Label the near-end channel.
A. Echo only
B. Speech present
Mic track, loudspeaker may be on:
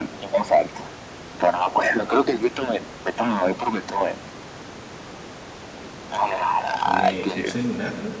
B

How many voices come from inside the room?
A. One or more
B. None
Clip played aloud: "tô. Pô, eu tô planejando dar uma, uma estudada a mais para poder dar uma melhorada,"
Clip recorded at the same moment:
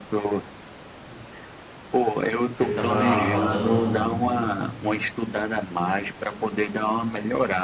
A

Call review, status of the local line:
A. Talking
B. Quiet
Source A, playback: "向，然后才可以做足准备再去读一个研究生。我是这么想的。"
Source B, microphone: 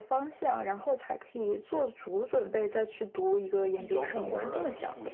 A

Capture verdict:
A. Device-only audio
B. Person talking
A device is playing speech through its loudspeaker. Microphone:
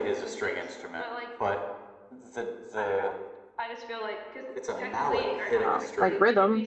B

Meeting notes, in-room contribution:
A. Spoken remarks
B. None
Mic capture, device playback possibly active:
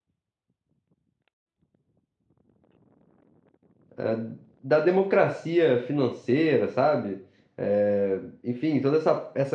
A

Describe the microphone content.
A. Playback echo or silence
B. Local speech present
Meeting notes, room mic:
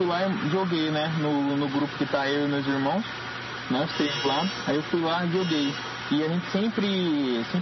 A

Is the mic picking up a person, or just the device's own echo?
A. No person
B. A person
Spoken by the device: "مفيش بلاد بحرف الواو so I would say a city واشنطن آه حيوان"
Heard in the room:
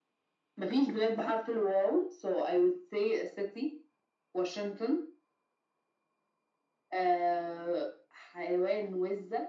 A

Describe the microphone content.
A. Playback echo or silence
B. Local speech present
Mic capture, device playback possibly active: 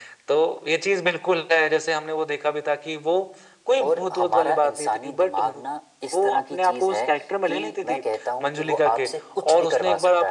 A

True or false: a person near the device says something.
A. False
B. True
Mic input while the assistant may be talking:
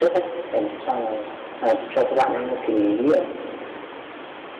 B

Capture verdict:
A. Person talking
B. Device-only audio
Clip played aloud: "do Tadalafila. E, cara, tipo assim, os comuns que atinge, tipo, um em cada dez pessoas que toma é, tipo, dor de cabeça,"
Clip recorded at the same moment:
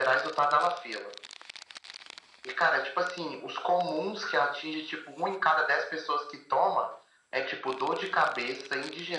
B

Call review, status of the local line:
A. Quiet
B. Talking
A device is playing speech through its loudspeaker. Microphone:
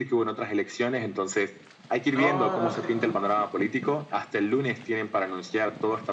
B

